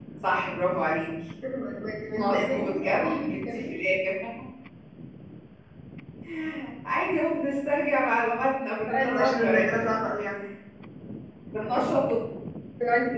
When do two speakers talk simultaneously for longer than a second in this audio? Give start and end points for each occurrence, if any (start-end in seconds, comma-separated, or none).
2.2-3.7, 8.7-10.0